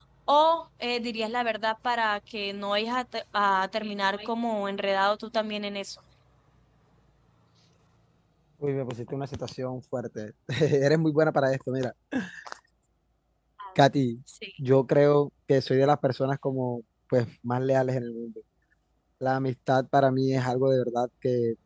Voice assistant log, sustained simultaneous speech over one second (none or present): none